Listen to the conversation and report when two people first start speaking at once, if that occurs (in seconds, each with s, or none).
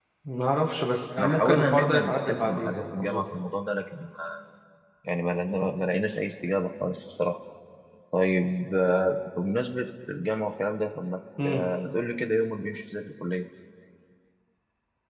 1.2 s